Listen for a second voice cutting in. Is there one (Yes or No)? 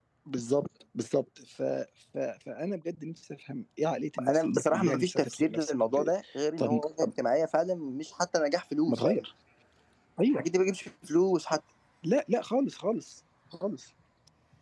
Yes